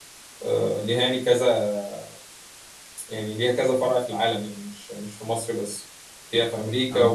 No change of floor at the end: Yes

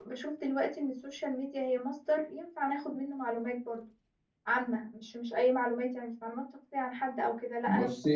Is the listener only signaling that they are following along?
Yes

